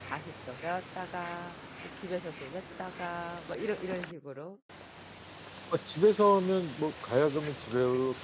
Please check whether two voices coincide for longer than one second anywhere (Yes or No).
No